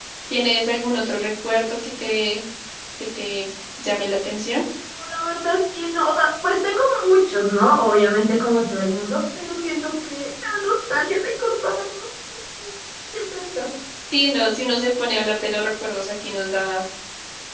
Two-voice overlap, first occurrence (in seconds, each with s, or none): none